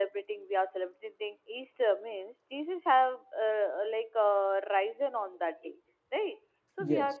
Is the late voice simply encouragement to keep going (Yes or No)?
Yes